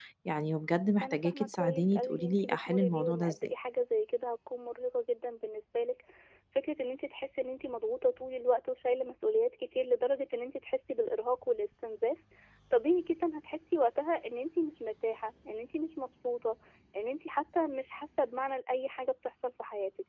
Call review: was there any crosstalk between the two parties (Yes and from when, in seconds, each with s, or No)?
Yes, from 1.0 s